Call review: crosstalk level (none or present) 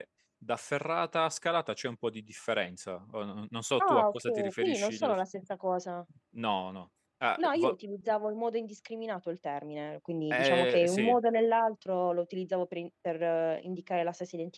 present